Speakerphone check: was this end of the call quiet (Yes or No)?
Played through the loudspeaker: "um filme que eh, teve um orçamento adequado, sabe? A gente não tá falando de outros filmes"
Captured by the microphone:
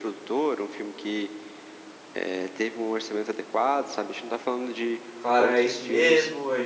No